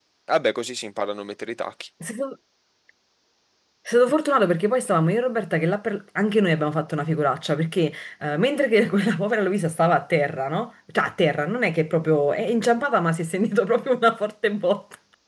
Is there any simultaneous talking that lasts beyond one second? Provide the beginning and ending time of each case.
none

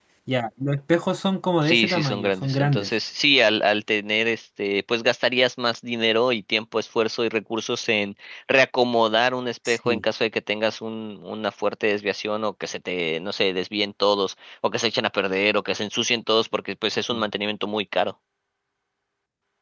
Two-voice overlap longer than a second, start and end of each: 1.6-2.9

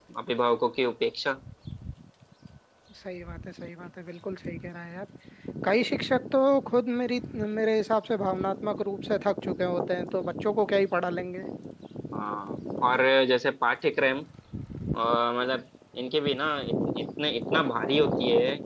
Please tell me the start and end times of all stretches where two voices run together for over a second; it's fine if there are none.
none

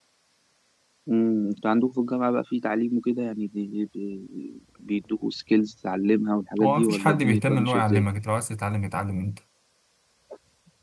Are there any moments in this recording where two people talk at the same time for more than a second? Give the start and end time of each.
6.6-8.0

